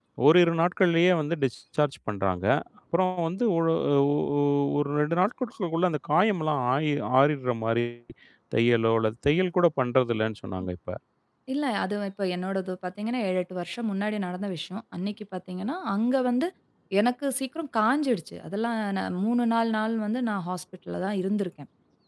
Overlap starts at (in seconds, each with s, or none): none